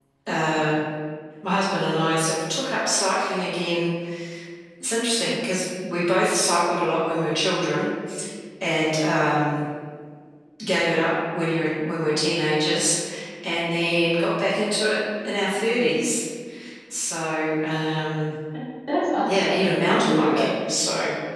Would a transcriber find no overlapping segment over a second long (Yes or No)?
No